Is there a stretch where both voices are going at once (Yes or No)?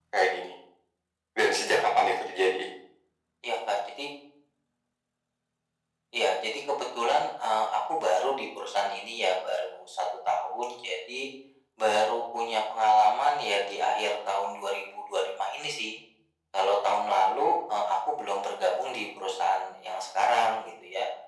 No